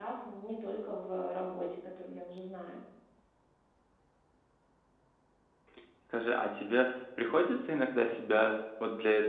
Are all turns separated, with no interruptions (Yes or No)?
Yes